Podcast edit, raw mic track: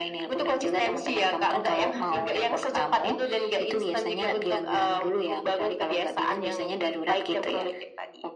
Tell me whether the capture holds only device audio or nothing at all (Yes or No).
Yes